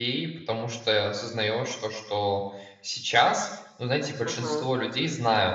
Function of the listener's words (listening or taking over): listening